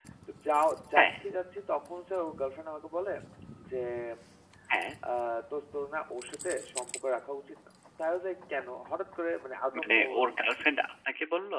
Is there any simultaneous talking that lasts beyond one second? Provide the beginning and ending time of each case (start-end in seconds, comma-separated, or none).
none